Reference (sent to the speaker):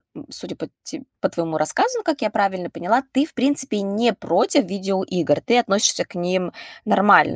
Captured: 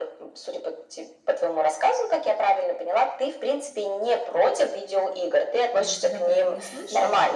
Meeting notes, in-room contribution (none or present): present